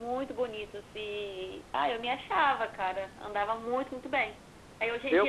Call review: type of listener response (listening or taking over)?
listening